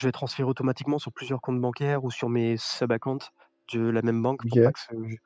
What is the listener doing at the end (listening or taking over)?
listening